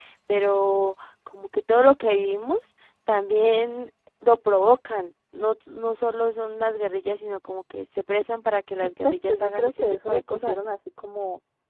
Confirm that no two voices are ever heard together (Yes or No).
No